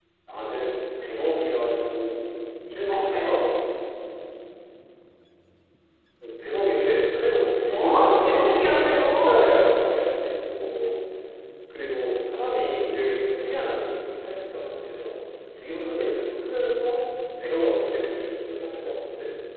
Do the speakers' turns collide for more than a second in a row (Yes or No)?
Yes